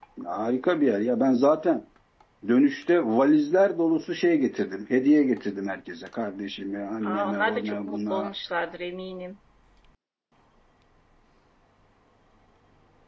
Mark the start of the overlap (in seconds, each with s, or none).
7.0 s